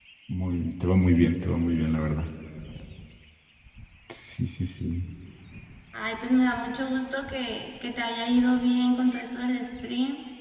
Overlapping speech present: No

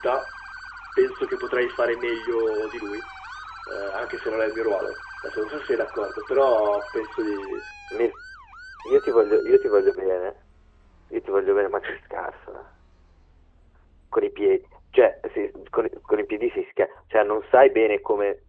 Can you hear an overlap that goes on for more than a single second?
No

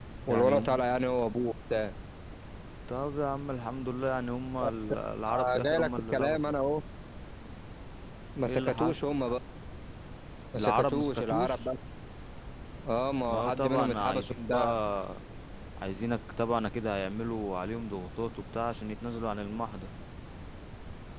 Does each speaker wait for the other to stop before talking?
No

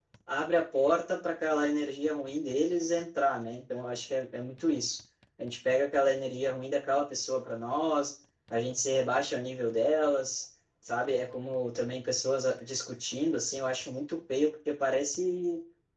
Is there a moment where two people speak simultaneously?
No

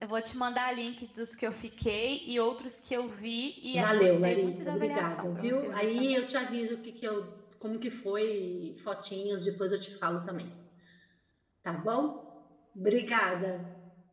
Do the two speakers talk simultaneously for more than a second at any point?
Yes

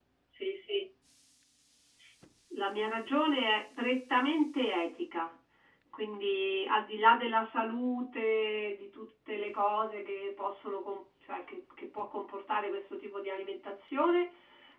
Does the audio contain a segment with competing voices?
No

